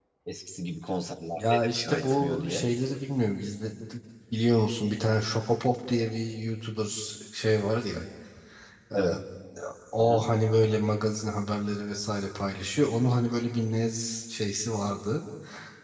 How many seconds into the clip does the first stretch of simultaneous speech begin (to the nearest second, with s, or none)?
1 s